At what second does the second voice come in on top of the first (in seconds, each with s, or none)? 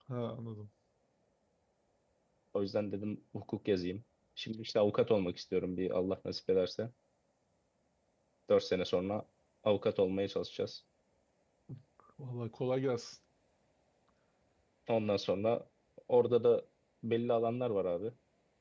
none